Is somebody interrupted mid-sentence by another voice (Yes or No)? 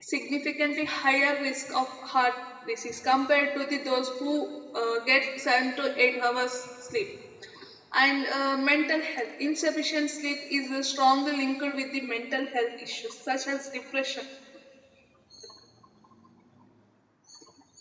No